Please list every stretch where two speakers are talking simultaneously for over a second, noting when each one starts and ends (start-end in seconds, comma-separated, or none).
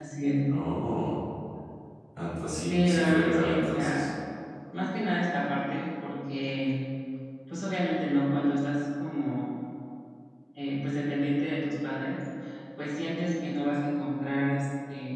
2.7-4.0